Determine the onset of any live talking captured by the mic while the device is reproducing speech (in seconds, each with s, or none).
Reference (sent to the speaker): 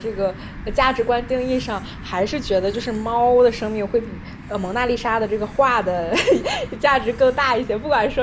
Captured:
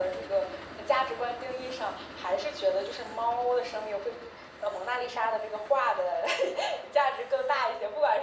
none